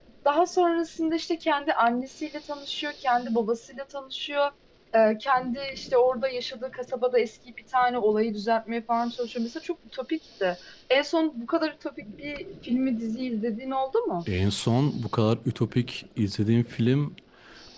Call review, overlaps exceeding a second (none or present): none